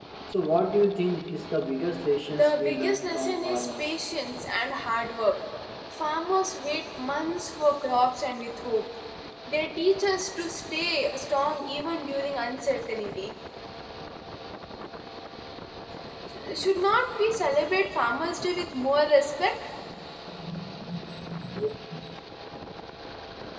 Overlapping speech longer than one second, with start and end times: 2.3-3.8

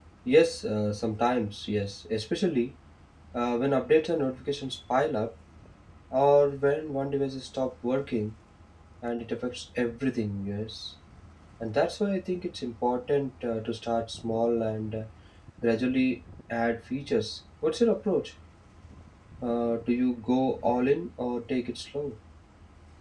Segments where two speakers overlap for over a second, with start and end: none

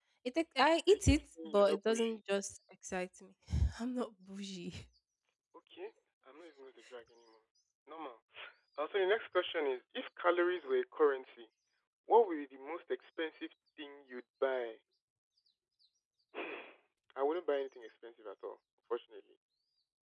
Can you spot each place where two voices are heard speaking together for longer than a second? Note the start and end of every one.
0.9-2.2

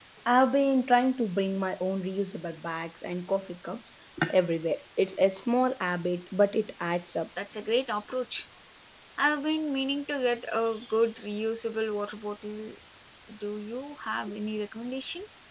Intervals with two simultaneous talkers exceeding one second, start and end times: none

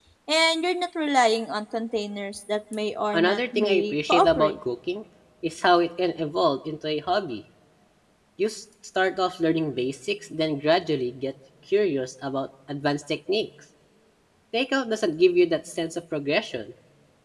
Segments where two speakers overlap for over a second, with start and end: 3.1-4.5

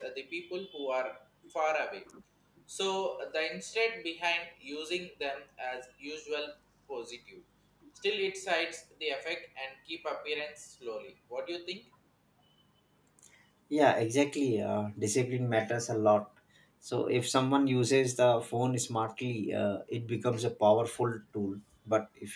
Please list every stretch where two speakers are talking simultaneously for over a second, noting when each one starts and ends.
none

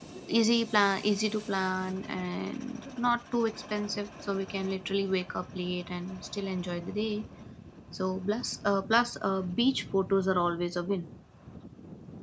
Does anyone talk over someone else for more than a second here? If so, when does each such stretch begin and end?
none

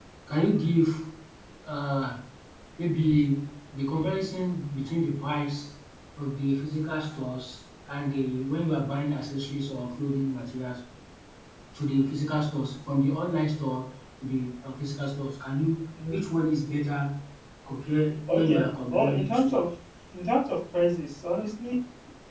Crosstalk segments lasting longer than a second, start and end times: 18.3-19.5

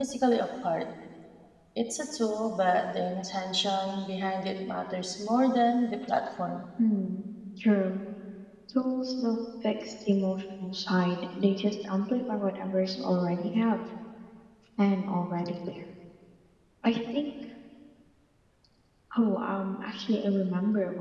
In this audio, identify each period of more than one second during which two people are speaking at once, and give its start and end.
none

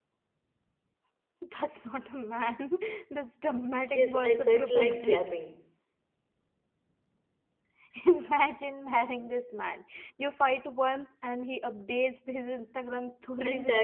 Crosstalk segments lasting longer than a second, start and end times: 3.8-5.3

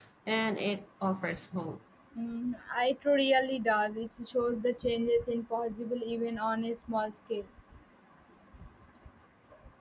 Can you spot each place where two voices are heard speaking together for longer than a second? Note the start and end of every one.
none

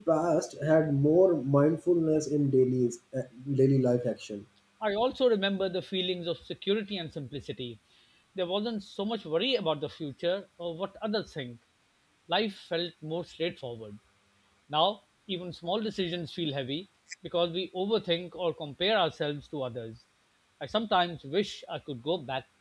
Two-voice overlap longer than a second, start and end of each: none

